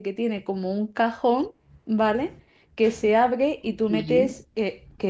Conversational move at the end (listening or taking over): listening